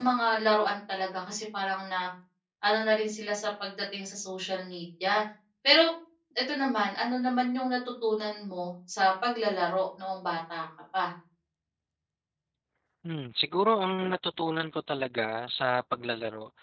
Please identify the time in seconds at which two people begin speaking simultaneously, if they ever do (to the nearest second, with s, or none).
none